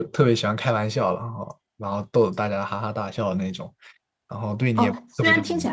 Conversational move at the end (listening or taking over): taking over